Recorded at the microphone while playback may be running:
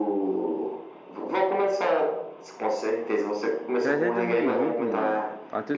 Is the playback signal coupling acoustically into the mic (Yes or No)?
Yes